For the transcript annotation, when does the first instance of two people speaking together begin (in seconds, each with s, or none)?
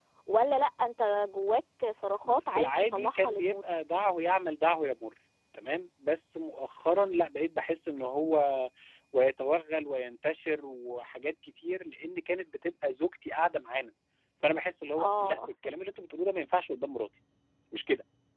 2.2 s